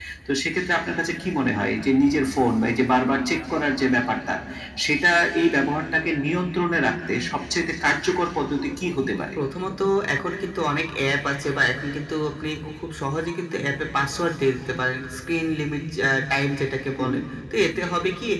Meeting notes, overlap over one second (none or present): none